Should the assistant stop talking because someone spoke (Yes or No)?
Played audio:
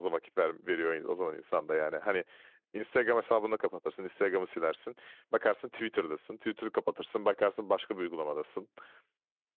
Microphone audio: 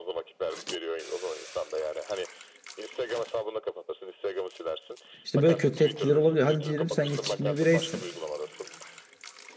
Yes